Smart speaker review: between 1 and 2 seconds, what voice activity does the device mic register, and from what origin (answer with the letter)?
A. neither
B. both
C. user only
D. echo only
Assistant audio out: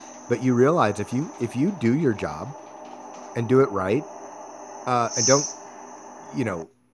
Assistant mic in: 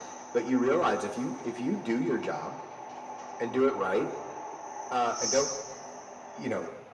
D